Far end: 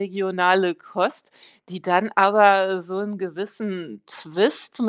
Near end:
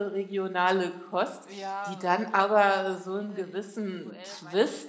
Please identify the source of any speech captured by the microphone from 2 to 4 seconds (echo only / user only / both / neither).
both